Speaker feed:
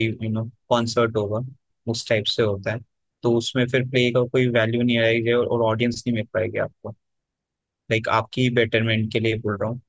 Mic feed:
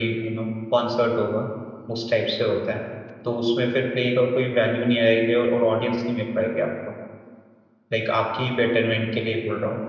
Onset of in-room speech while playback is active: none

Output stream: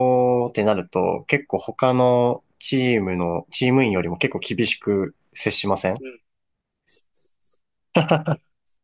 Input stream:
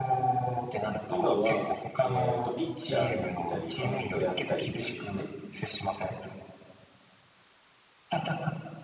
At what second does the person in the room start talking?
1.1 s

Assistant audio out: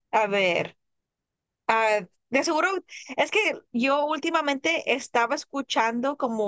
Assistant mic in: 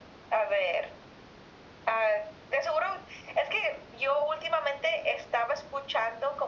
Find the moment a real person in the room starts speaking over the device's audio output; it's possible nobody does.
none

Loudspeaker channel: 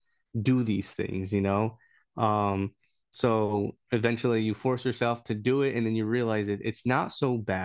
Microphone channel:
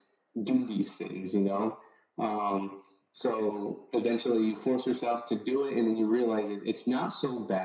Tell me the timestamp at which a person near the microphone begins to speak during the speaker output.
none

